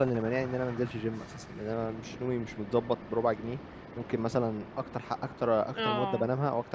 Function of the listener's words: listening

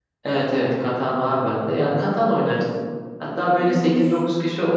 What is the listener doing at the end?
listening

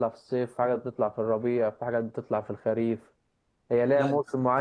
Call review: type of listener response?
listening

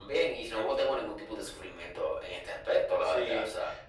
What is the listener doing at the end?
taking over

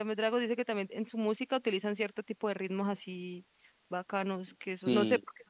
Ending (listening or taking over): listening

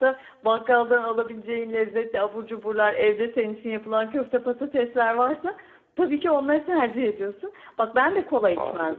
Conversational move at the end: listening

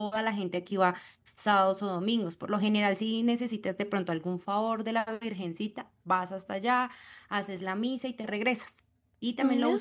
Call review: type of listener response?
listening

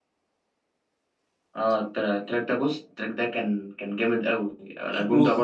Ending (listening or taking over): taking over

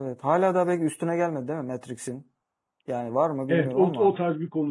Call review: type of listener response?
taking over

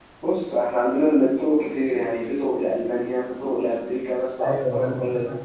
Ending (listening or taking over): taking over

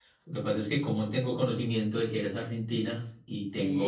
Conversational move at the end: listening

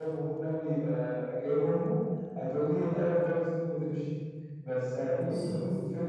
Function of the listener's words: listening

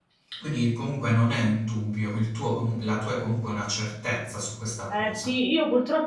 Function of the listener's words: taking over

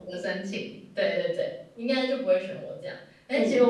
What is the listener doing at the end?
listening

